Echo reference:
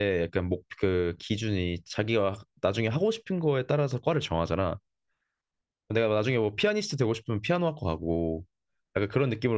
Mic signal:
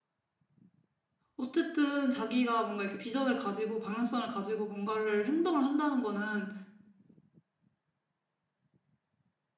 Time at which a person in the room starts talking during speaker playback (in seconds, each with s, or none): 1.3 s